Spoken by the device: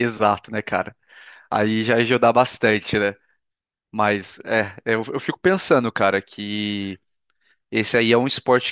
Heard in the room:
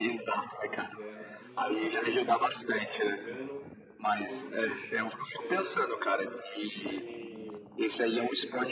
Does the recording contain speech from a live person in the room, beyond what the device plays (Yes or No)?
Yes